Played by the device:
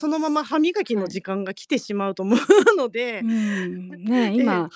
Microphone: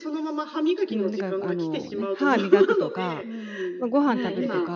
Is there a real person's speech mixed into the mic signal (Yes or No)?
Yes